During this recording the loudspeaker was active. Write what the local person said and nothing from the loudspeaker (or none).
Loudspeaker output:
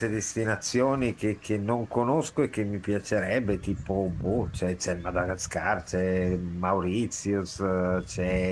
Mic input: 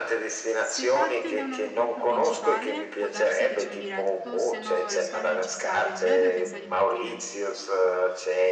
Se parte da un aeroporto principale, può darsi che c'è un diretto, se no lo scalo è necessario. Lei a dove pensa di partire?